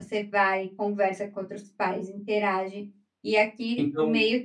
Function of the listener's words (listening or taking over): listening